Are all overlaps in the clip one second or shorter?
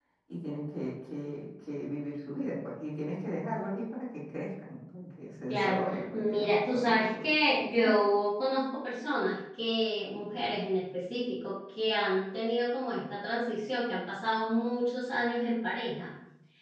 No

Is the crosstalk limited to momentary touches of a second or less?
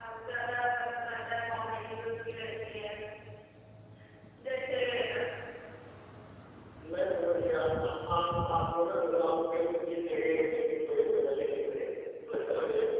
Yes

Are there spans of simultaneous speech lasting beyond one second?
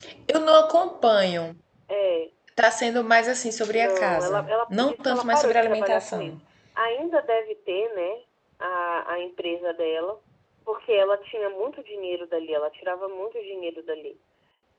Yes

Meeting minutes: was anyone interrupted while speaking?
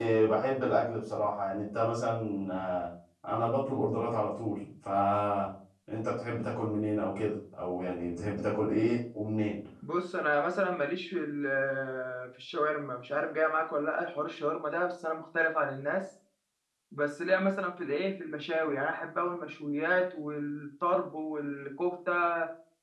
No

